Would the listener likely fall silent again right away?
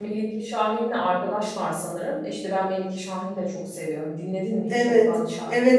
No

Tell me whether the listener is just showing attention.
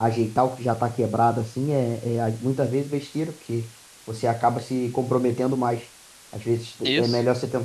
Yes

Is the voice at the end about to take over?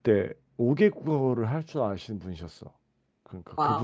No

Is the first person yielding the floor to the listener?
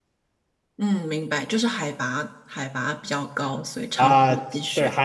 Yes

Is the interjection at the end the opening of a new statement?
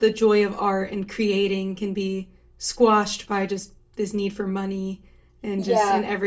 Yes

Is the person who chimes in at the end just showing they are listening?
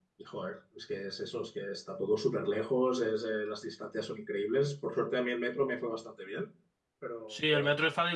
No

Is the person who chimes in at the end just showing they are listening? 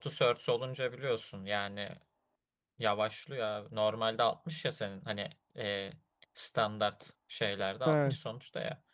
Yes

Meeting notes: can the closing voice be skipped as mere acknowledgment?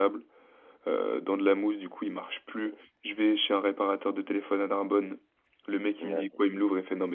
Yes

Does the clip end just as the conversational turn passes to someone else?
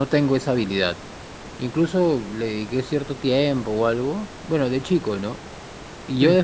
No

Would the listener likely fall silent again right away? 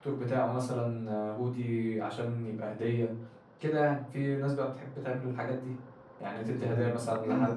No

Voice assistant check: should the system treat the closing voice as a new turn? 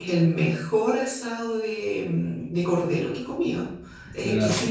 No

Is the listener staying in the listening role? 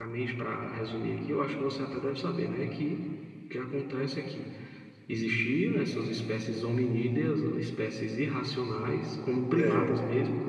Yes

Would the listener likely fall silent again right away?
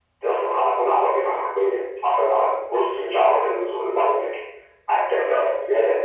Yes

